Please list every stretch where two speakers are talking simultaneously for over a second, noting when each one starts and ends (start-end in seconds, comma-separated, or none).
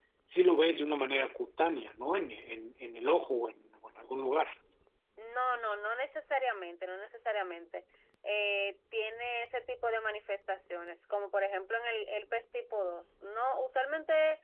none